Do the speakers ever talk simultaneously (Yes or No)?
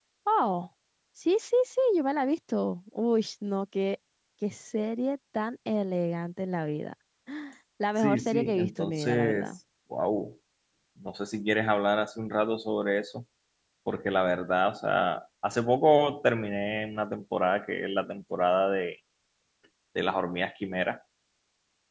Yes